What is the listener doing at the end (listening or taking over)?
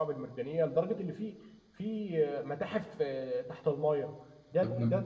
listening